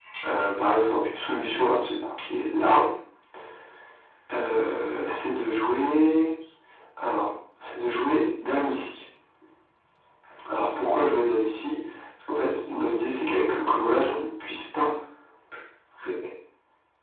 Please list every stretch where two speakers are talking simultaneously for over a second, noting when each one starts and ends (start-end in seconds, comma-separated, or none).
none